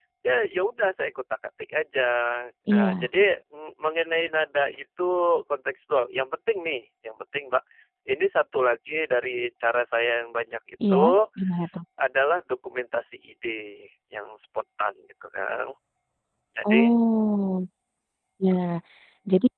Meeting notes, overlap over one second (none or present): none